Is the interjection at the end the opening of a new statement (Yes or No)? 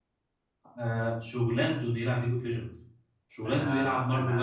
Yes